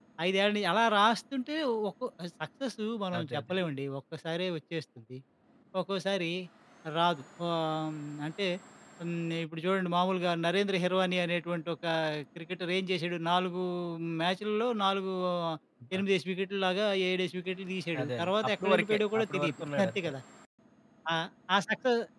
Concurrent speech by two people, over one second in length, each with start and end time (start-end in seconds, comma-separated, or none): 18.0-20.1